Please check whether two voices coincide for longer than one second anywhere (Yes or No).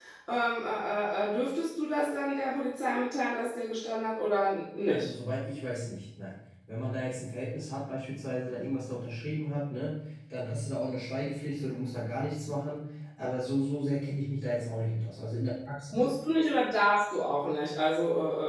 No